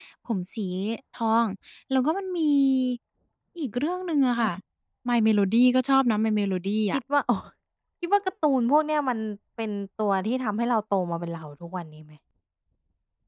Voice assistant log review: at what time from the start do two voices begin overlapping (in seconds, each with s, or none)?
none